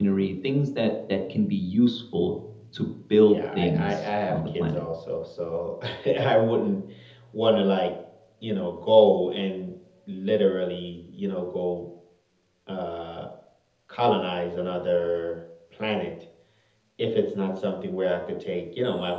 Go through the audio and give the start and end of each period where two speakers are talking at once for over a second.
3.3-4.8

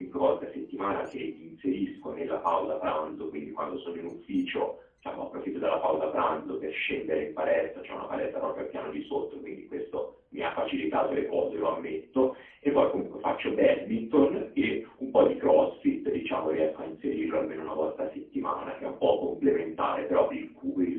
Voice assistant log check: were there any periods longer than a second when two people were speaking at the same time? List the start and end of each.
none

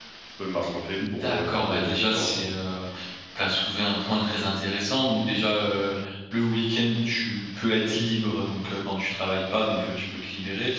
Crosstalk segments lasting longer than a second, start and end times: 1.0-2.4

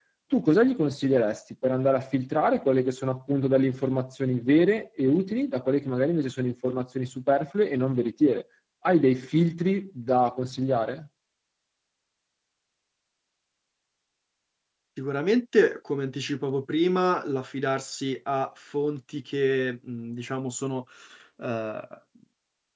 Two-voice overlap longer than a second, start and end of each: none

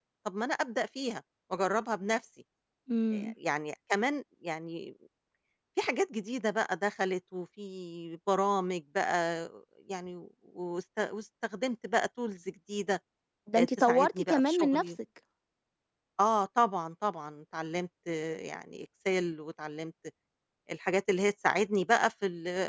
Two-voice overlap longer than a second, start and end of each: 13.6-14.9

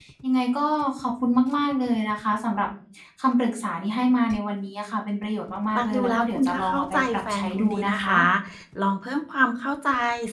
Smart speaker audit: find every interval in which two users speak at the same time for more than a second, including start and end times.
5.8-8.2

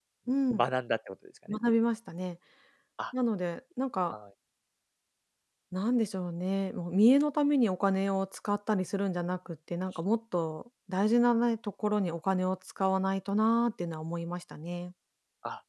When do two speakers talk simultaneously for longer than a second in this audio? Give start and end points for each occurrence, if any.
none

